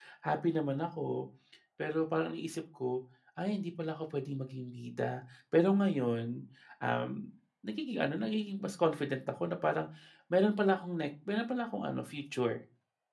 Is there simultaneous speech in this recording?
No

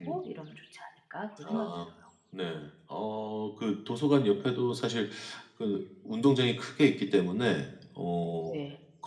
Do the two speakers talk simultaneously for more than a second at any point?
No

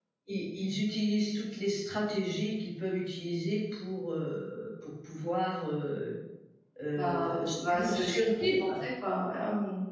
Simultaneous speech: Yes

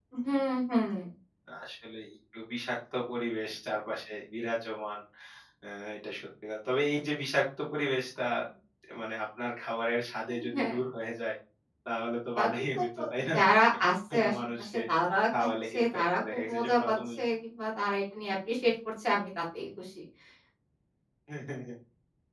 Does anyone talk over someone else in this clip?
Yes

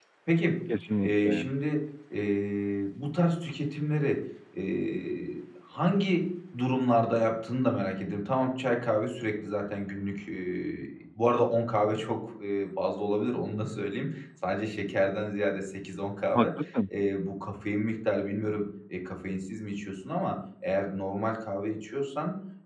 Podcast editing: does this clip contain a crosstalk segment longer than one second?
No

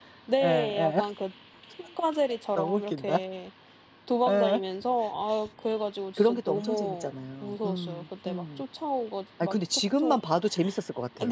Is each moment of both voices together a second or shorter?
No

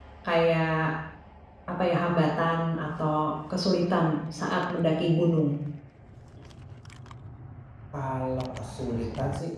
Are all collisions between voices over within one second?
Yes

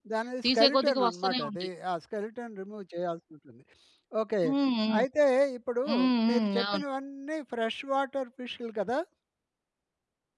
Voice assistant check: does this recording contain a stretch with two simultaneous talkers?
Yes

